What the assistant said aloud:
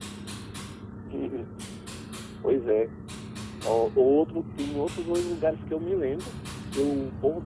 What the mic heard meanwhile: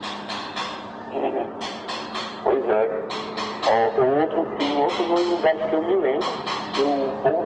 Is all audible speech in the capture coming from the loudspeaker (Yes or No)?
Yes